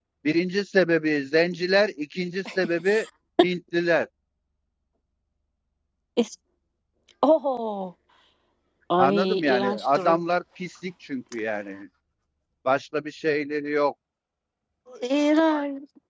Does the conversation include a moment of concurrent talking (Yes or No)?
Yes